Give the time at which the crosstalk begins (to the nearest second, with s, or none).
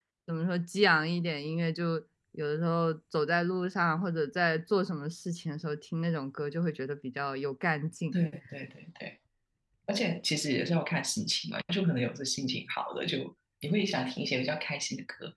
none